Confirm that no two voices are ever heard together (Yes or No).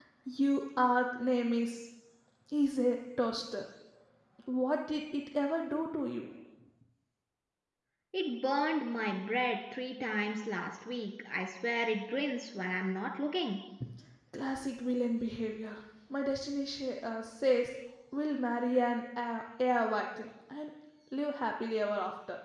Yes